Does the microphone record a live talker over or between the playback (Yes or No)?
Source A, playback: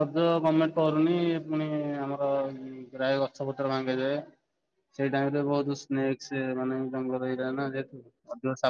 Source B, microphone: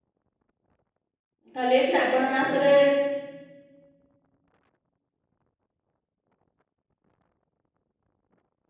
Yes